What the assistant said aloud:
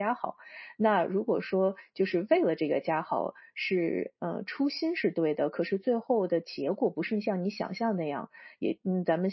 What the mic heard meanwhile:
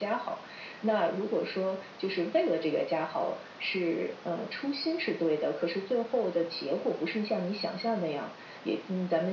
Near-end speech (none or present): none